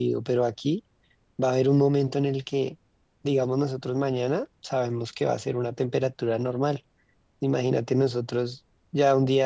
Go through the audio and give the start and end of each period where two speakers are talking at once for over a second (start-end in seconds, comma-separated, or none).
none